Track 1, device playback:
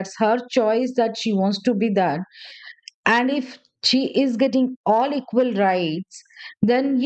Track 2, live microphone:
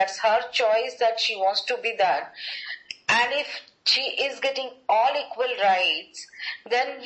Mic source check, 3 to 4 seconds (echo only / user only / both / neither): echo only